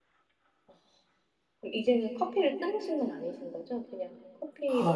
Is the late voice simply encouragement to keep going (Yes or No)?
No